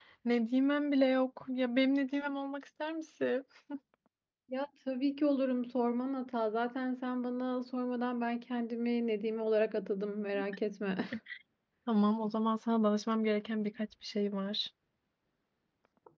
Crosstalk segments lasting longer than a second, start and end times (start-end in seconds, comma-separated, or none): none